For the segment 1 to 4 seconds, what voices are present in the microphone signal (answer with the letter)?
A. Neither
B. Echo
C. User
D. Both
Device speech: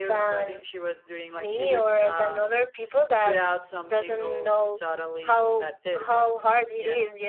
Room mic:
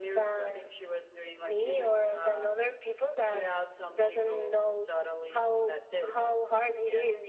B